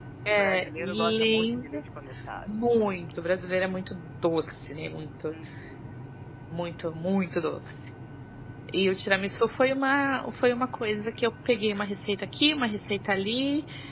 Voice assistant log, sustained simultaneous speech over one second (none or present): present